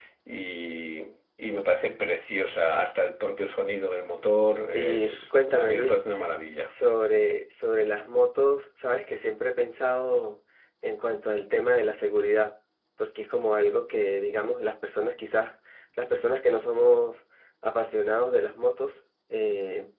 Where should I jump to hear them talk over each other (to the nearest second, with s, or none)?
5 s